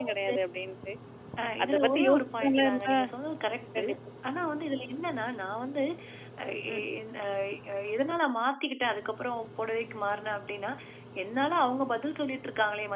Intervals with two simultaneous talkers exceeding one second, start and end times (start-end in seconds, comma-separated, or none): 1.6-3.0